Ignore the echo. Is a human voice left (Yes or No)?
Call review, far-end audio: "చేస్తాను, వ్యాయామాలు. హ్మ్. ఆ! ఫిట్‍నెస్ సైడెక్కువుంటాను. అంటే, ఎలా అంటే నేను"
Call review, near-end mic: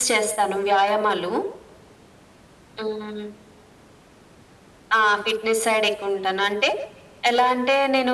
No